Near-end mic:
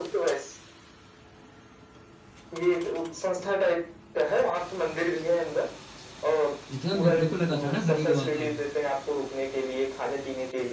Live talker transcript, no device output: जितना मेरे को लगा था ना हरिद्वार

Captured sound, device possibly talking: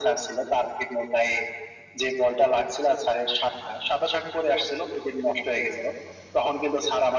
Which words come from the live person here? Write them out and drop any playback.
none

